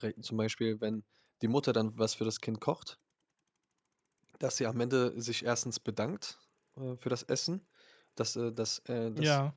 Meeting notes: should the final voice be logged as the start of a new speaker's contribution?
No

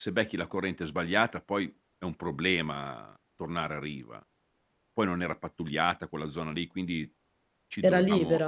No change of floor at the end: Yes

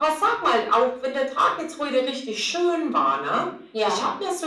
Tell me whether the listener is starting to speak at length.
No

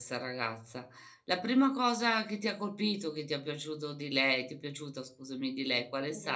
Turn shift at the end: Yes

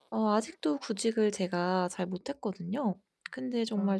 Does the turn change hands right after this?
No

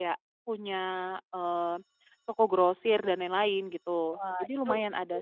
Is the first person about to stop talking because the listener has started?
Yes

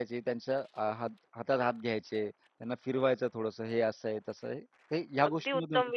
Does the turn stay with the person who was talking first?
No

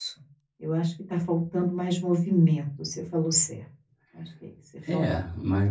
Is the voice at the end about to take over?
Yes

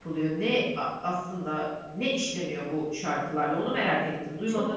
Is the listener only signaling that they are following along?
No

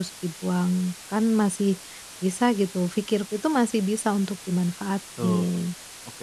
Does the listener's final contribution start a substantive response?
Yes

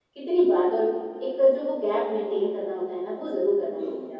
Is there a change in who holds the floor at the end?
Yes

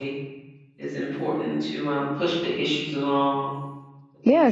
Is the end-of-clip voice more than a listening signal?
Yes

